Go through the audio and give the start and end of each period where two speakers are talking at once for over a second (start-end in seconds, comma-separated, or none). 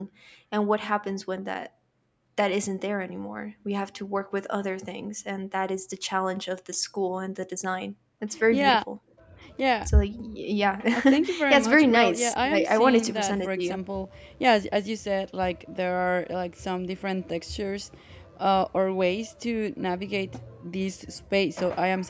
10.9-13.8